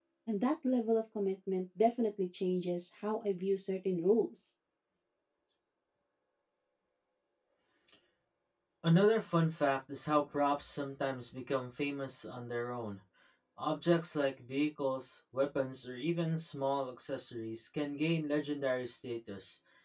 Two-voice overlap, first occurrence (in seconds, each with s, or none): none